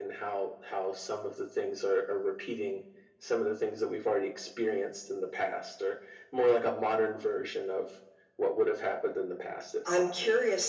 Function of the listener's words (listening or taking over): taking over